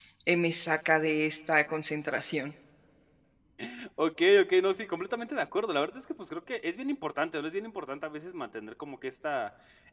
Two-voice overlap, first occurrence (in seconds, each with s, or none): none